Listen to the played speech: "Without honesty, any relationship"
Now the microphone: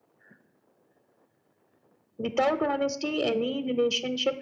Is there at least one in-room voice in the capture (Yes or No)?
No